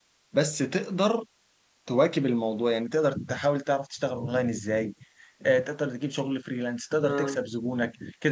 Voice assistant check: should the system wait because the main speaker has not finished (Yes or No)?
Yes